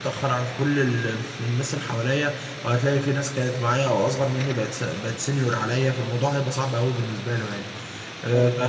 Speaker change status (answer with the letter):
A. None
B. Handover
A